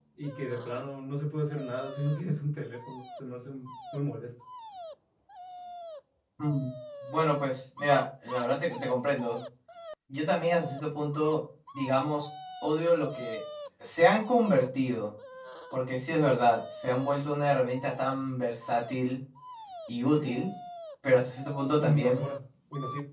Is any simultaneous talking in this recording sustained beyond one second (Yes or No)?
No